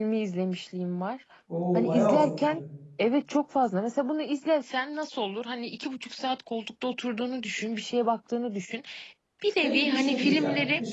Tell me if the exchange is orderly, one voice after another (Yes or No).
No